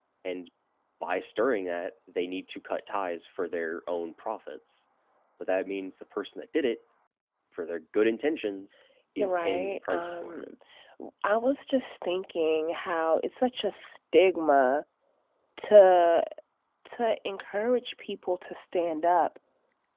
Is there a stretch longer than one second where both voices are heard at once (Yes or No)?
Yes